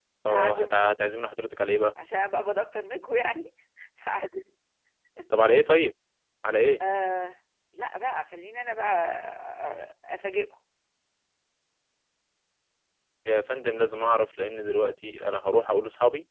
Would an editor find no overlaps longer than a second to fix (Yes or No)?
Yes